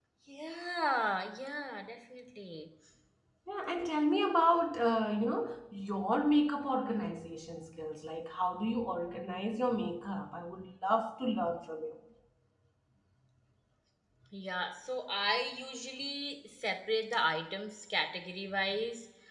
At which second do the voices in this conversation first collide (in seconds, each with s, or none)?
none